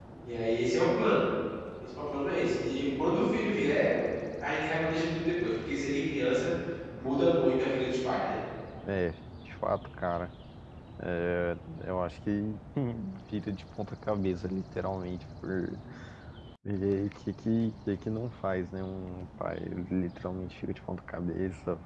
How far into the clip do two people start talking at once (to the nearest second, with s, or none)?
none